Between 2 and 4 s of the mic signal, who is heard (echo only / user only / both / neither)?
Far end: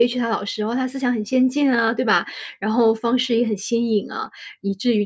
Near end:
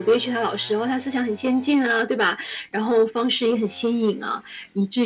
echo only